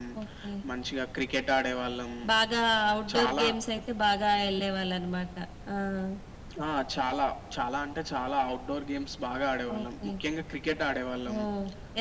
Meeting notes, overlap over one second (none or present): none